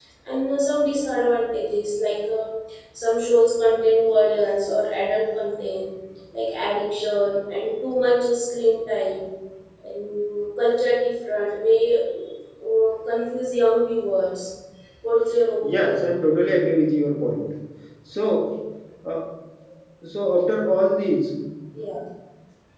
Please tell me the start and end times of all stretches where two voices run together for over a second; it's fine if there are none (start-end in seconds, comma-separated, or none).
none